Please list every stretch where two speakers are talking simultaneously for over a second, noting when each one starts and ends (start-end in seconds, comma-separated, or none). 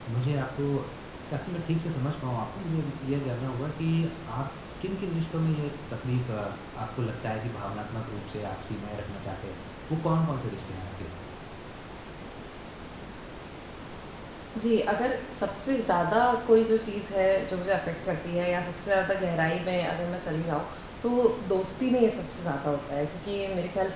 none